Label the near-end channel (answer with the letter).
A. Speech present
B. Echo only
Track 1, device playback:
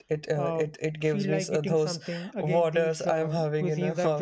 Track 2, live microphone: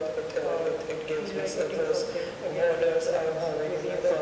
B